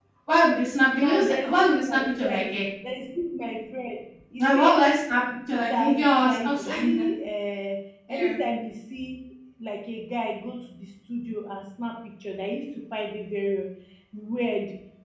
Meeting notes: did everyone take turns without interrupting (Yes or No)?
No